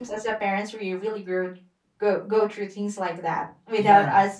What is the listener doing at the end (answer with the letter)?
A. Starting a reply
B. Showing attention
B